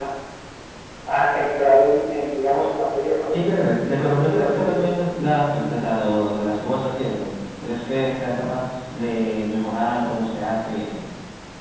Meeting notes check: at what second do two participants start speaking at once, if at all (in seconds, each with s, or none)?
3.3 s